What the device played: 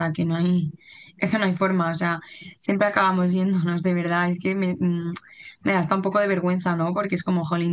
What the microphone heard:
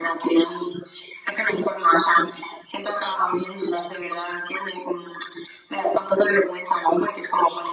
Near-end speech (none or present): none